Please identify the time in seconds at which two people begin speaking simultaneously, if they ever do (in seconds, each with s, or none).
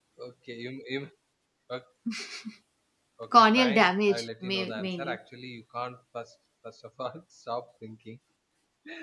3.4 s